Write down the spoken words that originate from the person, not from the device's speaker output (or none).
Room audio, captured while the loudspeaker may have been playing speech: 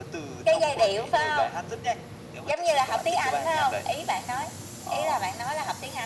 none